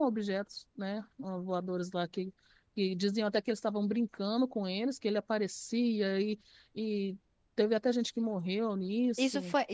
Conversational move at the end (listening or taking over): taking over